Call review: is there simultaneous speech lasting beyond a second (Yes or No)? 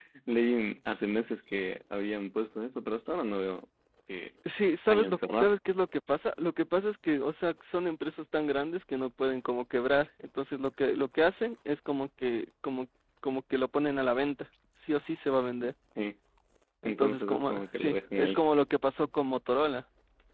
Yes